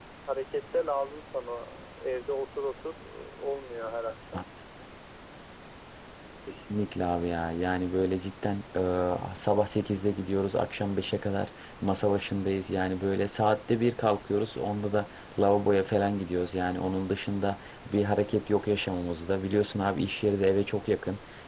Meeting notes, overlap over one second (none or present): none